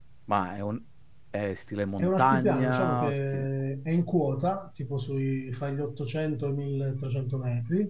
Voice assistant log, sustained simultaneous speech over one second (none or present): present